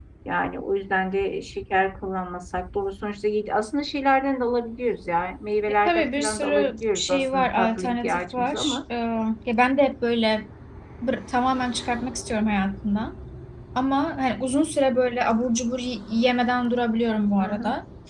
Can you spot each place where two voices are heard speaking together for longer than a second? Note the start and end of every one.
5.8-8.8

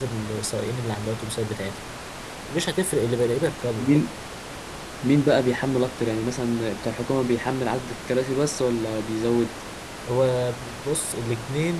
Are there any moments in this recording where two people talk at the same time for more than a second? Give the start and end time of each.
none

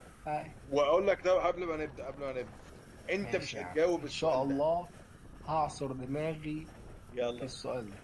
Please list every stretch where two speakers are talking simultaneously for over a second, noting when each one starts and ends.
3.2-4.6

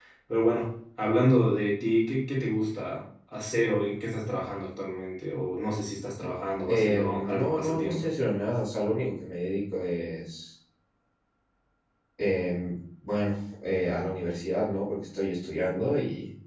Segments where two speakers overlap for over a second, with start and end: 6.7-8.0

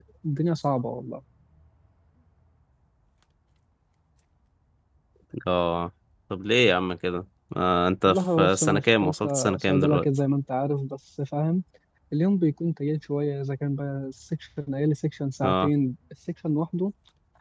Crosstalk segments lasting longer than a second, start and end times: 8.0-10.1

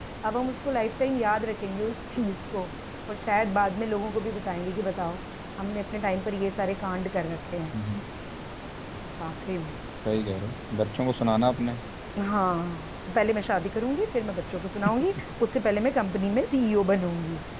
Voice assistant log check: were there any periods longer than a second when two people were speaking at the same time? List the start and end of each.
none

